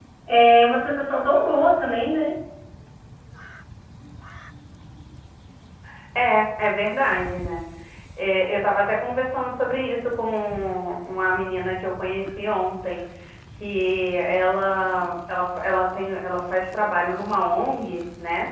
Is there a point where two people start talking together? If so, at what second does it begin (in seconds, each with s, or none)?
none